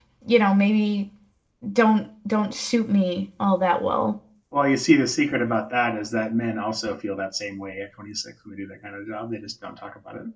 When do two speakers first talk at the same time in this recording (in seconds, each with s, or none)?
none